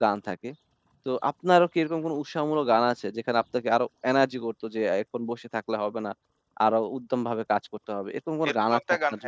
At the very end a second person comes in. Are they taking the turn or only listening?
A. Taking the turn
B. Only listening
A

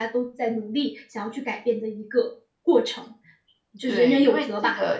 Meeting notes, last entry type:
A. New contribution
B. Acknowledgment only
A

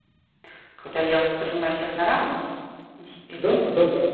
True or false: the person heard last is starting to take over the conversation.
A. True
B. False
A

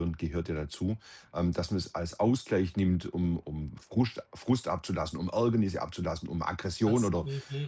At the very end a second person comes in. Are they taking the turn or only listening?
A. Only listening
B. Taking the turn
A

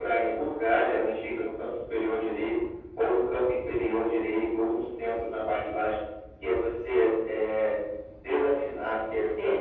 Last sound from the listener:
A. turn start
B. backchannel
B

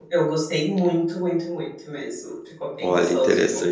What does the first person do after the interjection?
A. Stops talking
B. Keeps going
A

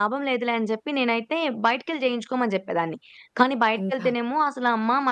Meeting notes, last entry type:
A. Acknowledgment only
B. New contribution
A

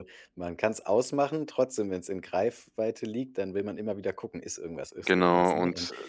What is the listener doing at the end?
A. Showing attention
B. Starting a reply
B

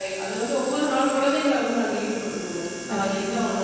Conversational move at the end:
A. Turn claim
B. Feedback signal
B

